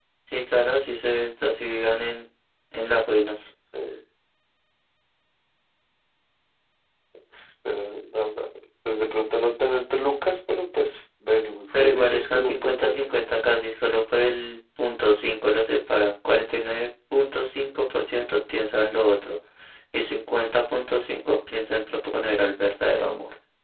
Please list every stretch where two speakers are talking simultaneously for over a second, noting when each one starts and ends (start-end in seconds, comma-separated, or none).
11.8-13.1